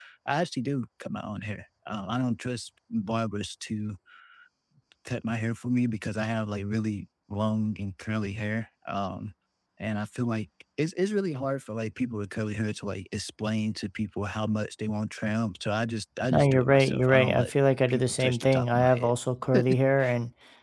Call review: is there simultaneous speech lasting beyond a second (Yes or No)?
Yes